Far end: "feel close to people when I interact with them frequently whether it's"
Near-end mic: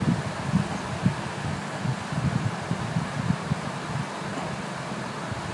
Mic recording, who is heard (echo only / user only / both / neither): neither